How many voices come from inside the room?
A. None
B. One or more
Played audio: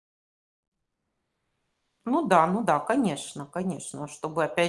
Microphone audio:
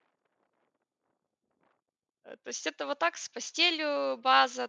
B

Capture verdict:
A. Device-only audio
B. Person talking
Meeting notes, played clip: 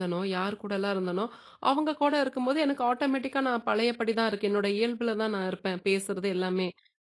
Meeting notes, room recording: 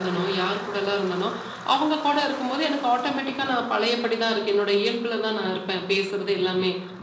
A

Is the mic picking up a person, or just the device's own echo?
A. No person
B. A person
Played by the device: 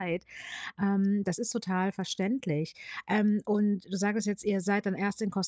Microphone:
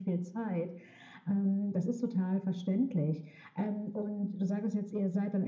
A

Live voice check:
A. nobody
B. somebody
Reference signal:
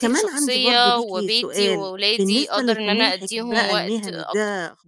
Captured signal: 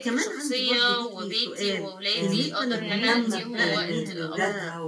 B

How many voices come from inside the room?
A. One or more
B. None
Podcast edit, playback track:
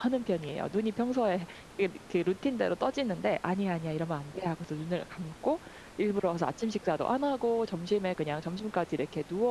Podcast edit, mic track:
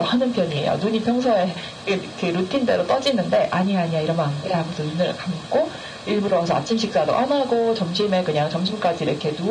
B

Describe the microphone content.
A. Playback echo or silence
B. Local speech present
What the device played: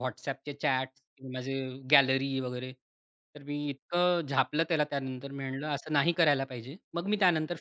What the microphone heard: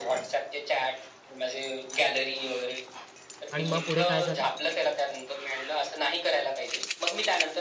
B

